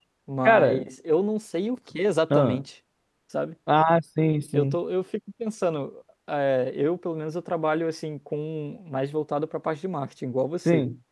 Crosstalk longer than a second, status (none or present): none